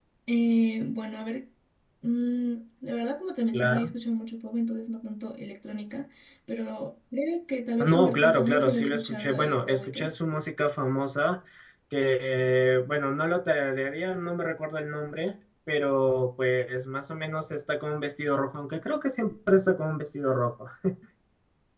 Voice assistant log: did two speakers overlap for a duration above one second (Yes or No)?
Yes